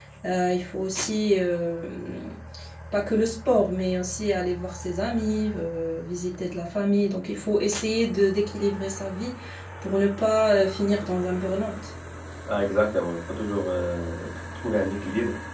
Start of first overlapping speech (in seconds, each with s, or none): none